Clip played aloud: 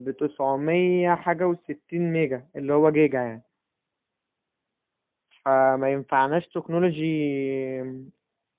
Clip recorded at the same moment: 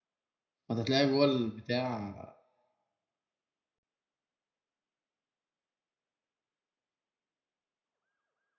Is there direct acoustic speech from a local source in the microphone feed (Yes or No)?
Yes